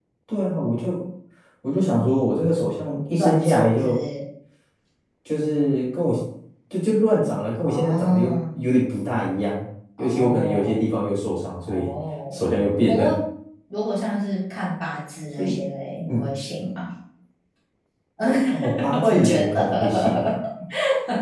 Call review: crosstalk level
present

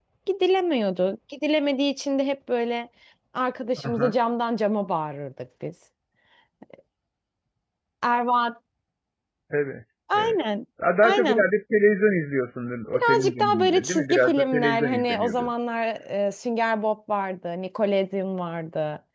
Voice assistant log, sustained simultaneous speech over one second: present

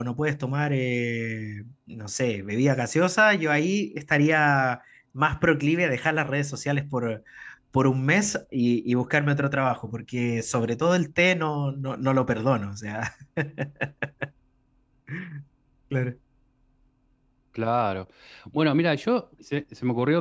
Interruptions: none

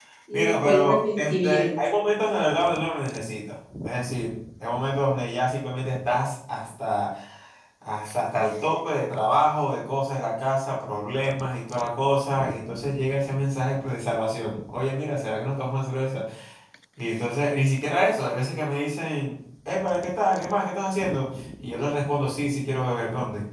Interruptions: present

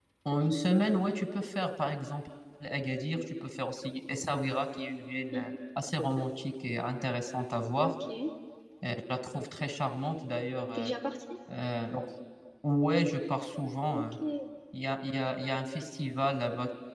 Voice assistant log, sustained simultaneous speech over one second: none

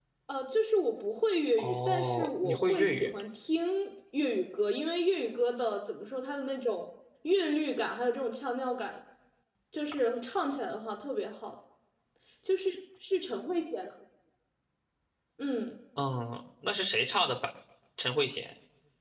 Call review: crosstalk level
present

